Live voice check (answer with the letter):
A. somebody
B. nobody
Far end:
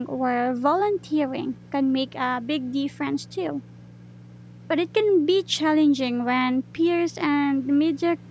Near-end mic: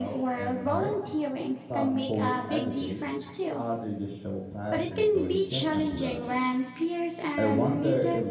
A